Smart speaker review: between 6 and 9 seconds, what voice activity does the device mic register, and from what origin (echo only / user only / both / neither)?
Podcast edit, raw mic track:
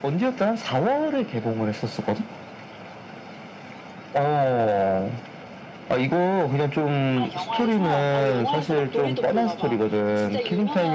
both